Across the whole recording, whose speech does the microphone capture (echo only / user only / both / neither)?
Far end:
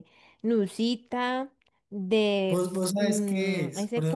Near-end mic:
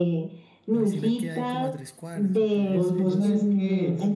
both